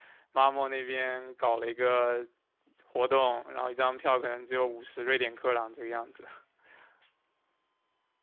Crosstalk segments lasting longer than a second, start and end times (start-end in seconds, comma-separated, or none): none